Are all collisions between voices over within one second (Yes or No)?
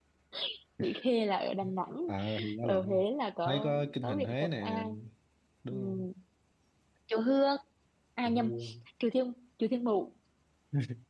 No